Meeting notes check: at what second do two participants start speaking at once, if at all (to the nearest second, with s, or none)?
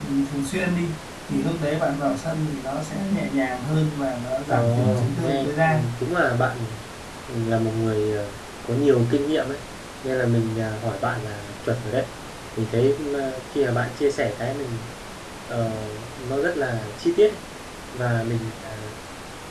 4 s